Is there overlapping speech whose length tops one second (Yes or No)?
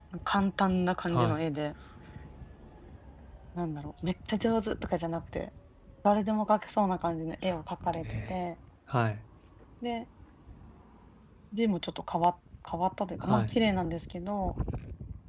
No